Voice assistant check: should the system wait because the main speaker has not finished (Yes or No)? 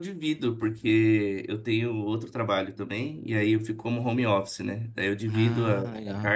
Yes